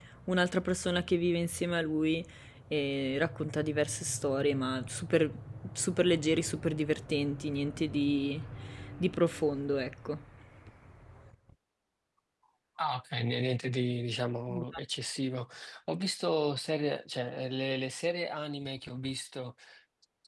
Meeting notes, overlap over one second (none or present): none